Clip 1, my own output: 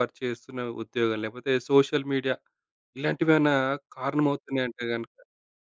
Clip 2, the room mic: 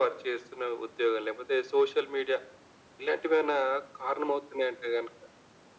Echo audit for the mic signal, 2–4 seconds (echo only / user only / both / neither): echo only